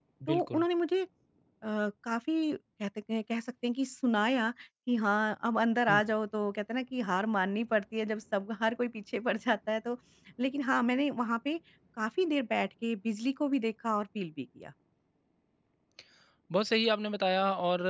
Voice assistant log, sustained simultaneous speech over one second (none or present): none